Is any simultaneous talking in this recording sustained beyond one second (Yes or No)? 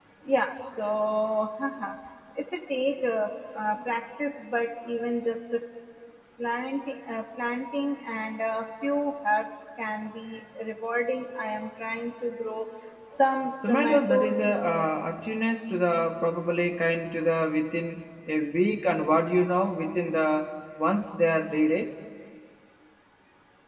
Yes